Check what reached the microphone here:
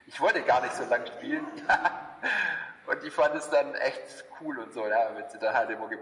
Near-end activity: present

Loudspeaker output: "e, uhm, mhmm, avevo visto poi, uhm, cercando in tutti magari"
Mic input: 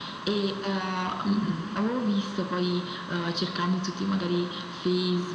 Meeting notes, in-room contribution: present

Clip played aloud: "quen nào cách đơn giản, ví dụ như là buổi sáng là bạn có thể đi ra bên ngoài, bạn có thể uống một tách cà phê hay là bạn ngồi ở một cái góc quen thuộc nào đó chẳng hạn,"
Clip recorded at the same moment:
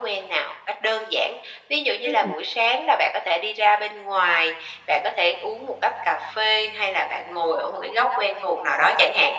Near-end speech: present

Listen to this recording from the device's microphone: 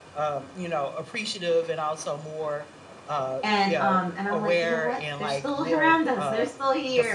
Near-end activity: present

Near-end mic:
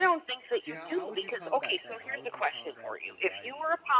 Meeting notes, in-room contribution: present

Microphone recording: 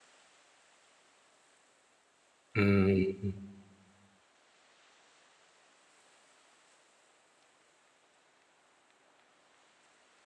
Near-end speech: present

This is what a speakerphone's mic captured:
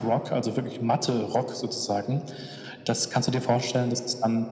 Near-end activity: none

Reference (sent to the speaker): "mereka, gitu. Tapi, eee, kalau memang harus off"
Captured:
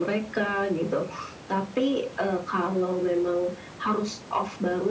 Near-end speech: none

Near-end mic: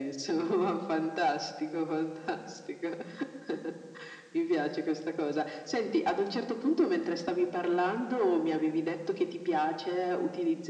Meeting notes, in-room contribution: none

